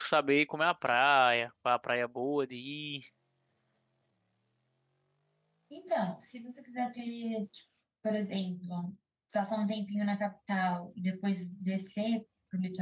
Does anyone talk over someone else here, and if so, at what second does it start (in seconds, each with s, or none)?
none